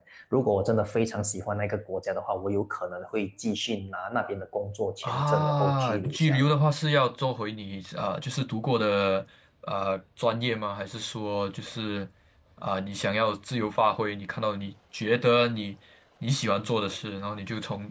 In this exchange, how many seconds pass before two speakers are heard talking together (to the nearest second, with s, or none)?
5 s